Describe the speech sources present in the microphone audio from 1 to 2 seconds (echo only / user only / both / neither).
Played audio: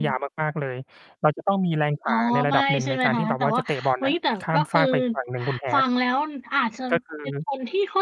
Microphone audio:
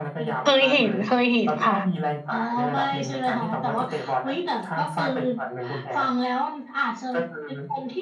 both